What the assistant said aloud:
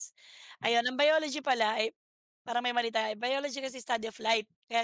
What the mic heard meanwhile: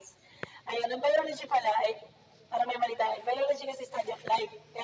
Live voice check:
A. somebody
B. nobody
B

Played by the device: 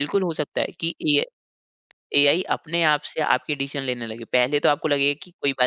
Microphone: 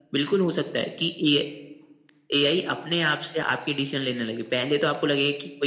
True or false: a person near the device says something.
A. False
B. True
A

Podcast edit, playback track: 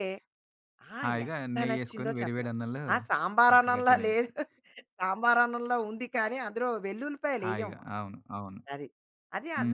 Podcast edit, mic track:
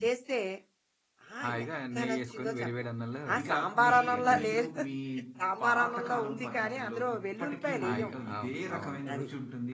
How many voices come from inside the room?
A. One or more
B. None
A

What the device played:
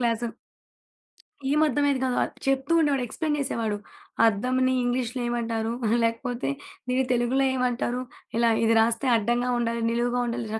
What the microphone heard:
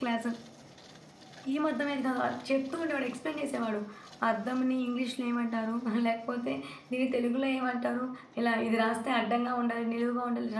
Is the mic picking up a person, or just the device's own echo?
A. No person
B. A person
A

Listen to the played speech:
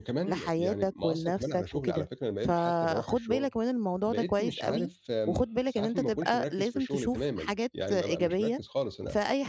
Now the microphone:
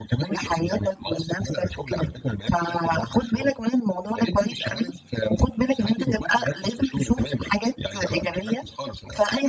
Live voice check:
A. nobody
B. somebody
A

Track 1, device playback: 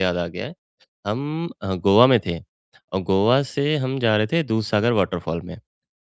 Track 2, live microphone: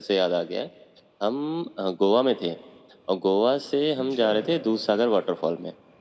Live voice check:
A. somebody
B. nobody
A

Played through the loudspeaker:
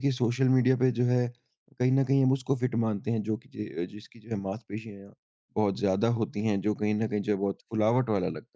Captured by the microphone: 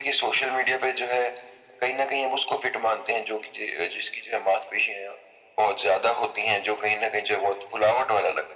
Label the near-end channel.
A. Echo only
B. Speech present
A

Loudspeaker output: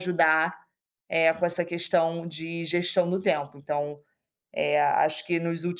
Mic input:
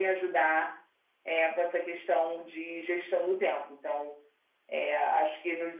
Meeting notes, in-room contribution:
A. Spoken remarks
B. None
B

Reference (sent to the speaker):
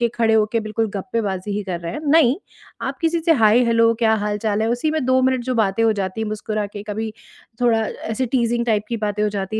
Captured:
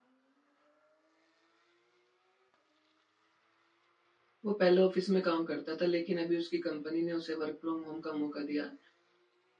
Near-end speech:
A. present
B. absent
A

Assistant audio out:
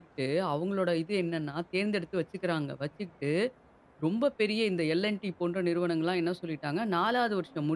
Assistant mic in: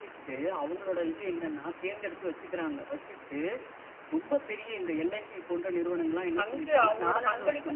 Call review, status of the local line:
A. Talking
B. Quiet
A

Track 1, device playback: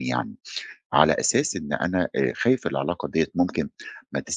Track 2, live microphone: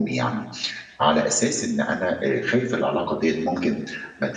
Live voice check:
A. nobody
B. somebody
A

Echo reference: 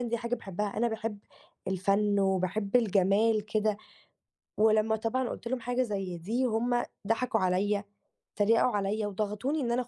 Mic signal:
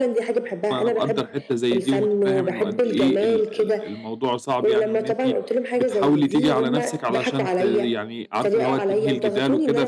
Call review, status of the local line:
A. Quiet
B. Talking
B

